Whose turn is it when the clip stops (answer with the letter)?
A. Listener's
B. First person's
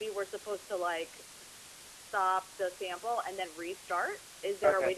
B